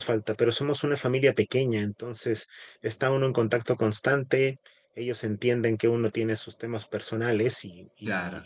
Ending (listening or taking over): listening